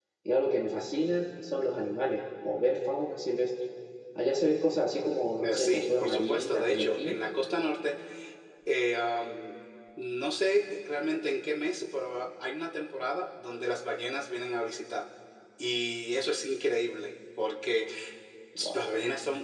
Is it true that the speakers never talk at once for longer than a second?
No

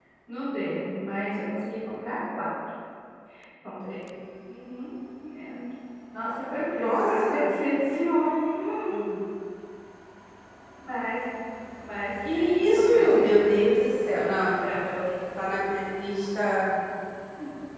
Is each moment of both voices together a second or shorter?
No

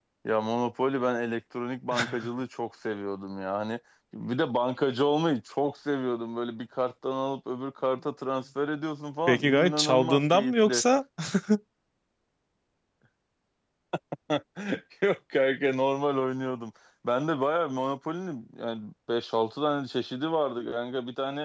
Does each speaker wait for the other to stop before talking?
No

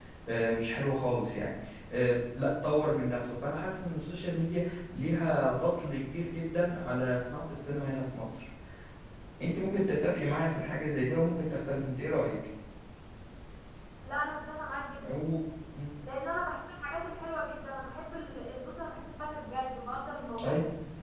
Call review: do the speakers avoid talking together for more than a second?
Yes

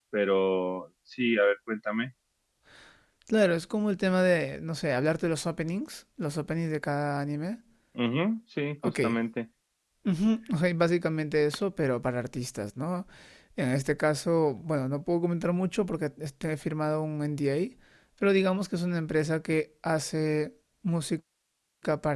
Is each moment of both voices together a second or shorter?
Yes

